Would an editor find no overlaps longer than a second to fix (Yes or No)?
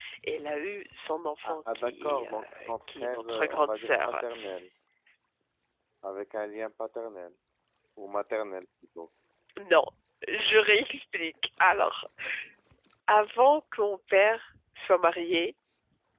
No